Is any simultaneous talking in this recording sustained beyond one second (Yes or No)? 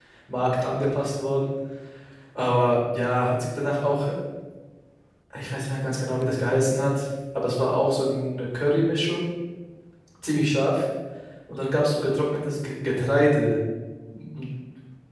No